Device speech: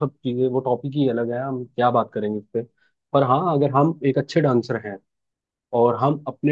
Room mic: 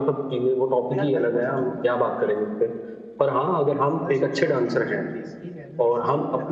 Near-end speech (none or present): present